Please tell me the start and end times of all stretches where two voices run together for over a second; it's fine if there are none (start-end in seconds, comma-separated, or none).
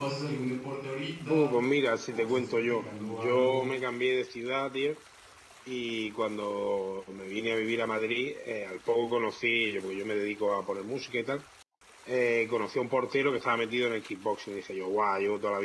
2.1-3.6